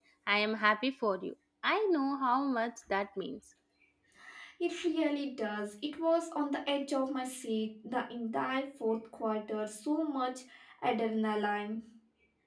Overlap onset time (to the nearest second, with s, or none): none